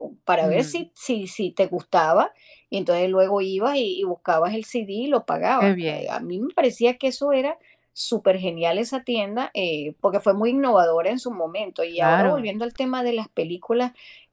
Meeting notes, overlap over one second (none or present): none